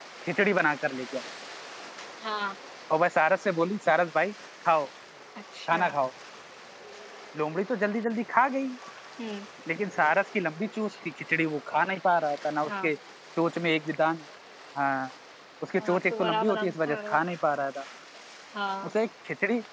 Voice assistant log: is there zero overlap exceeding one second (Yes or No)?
No